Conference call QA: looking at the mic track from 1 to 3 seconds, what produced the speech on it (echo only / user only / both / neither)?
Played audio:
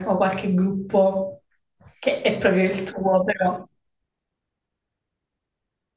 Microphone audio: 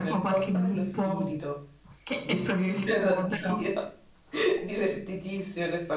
both